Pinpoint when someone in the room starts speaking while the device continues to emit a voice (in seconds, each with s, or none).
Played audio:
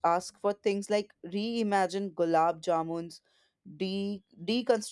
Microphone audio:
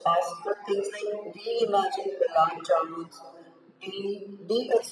none